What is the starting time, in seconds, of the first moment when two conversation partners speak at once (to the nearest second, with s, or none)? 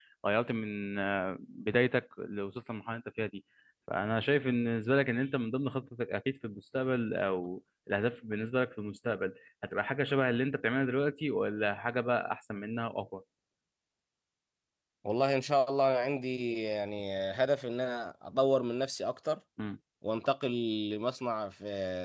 none